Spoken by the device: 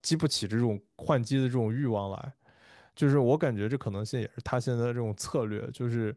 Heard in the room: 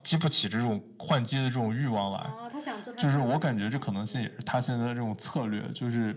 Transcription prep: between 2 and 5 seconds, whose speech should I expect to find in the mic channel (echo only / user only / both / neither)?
both